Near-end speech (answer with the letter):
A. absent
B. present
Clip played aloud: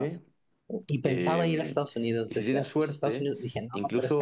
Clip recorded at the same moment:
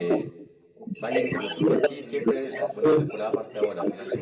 B